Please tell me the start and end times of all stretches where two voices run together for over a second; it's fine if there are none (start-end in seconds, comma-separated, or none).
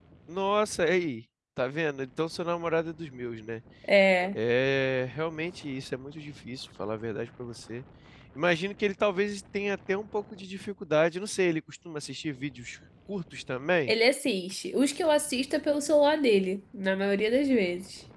none